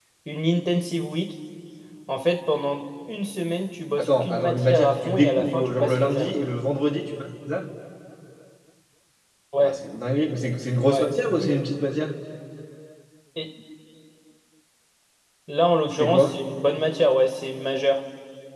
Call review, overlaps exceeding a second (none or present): present